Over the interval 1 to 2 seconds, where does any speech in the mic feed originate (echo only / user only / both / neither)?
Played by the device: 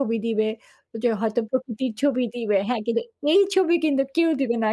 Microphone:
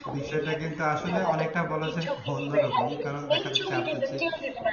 both